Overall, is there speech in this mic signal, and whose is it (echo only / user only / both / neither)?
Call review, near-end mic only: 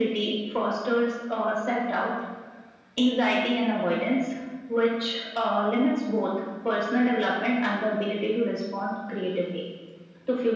echo only